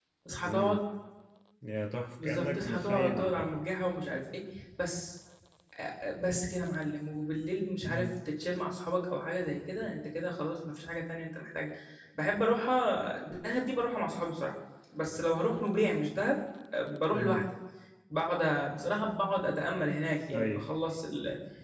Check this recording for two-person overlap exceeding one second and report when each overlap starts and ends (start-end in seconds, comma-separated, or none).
2.2-3.6